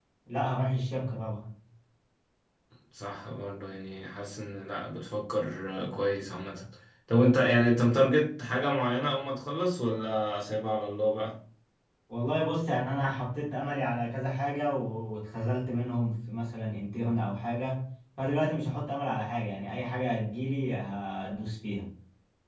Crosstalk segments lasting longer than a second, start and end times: none

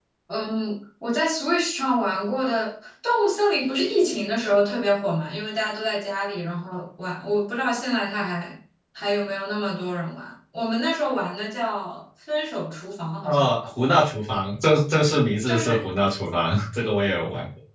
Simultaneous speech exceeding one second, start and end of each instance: none

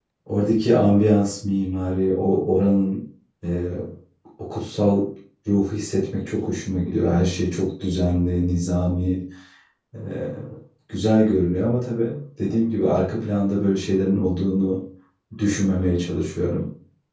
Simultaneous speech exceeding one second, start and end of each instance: none

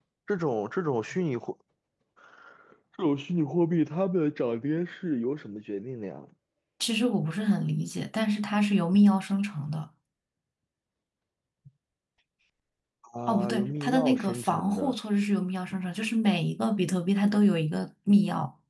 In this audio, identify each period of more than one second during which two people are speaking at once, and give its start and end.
13.3-14.9

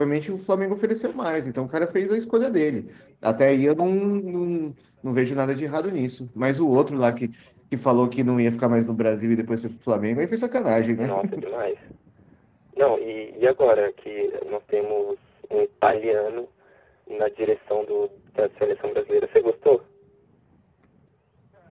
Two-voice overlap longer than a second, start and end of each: none

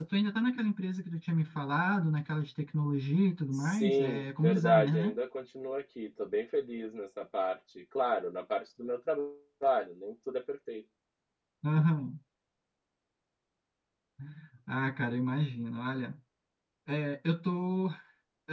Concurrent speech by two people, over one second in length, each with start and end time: 3.5-5.2

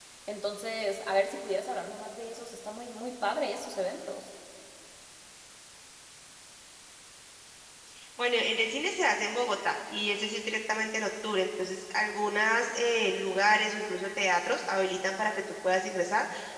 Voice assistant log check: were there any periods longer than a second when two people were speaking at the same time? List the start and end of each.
none

